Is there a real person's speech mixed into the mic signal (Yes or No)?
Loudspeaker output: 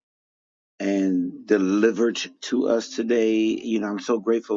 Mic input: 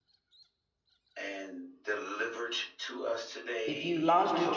Yes